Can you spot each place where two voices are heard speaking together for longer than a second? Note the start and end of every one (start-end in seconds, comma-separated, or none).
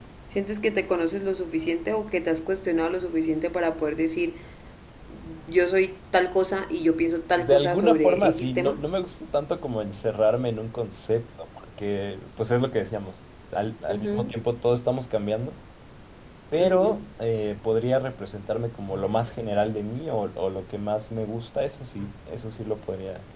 7.4-8.8